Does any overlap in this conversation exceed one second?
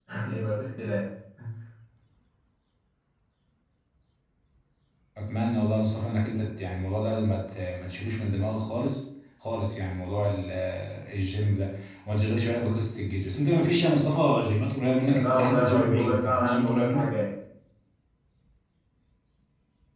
Yes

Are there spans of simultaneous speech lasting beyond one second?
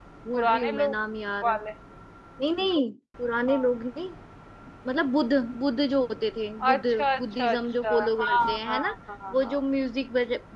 Yes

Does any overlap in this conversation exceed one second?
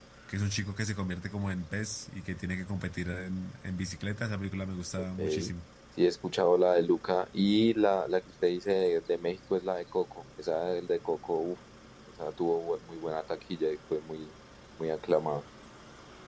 No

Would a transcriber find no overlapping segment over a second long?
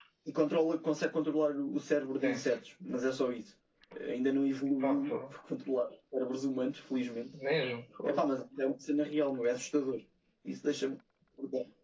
Yes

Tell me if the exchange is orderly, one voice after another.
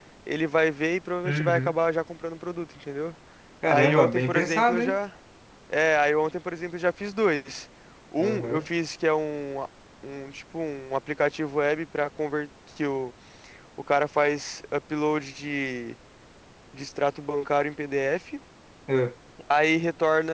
No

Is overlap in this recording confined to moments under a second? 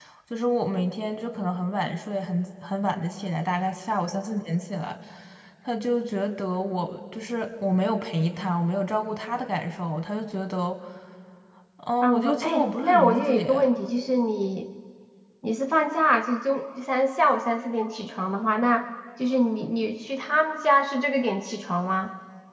No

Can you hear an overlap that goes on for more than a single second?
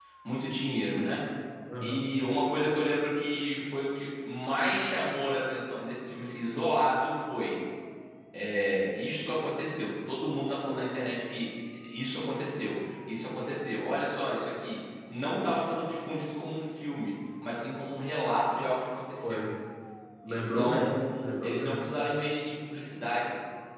Yes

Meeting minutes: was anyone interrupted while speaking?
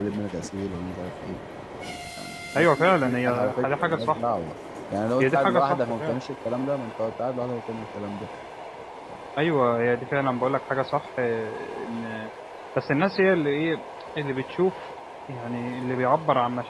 Yes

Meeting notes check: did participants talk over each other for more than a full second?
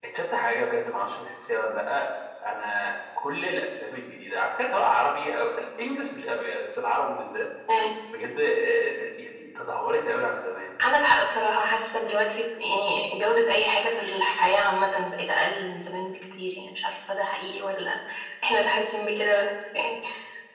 No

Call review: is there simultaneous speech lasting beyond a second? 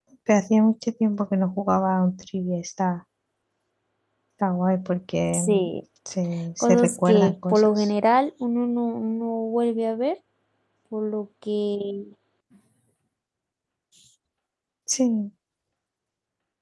Yes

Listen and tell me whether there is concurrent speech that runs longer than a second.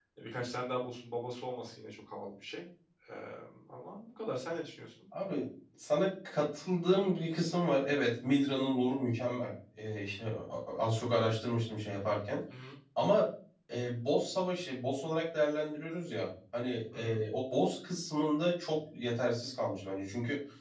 No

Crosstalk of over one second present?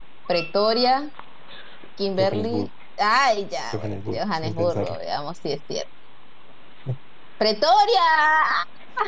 Yes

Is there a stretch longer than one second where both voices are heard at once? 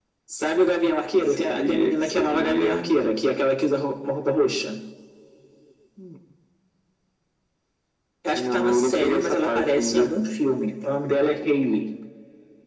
Yes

